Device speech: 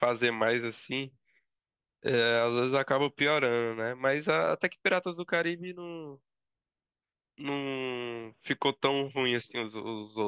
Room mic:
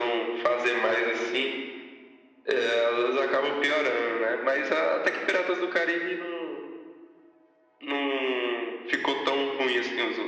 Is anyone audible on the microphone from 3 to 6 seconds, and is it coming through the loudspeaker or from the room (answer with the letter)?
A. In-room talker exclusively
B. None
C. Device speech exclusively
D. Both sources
C